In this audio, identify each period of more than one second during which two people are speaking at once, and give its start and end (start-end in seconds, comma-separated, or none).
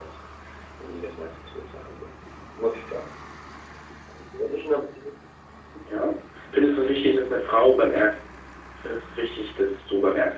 none